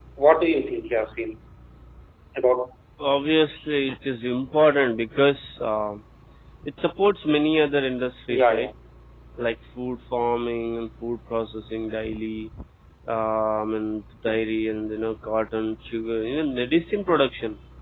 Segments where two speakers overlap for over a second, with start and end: none

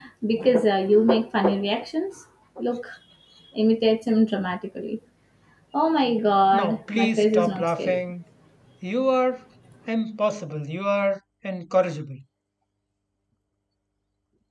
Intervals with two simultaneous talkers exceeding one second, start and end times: 6.5-8.0

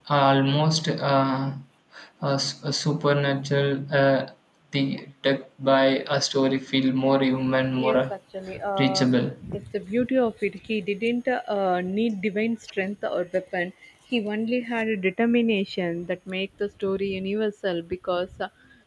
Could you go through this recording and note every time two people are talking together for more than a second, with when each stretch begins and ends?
none

